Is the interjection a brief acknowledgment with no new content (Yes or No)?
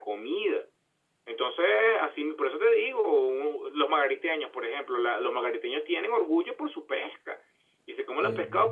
Yes